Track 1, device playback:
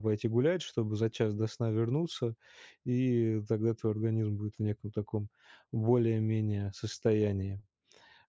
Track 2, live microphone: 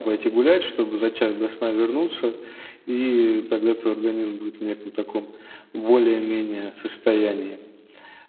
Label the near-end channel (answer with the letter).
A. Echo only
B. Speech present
A